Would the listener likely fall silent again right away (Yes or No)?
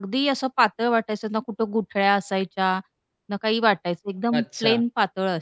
Yes